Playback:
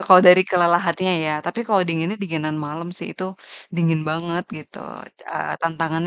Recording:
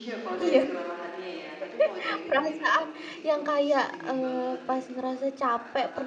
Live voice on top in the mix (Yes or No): Yes